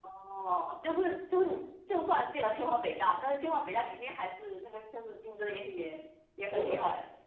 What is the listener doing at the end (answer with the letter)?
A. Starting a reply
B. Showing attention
A